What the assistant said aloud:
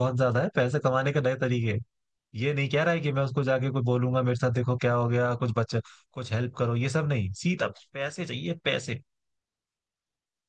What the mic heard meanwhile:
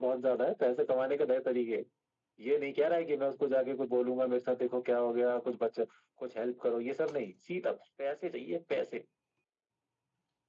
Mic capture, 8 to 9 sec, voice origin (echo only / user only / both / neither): echo only